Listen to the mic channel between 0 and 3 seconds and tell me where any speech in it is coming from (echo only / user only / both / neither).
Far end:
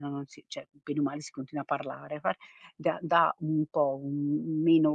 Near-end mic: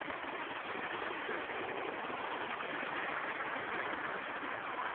neither